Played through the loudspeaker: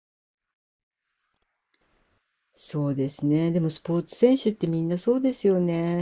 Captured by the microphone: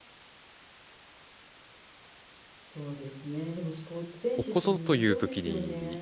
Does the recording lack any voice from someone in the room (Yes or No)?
No